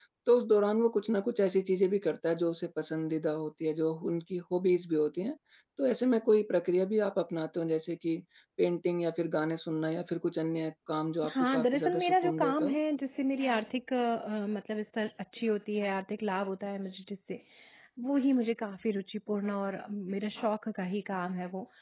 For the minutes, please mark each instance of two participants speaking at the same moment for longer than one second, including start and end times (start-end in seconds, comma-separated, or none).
11.3-12.8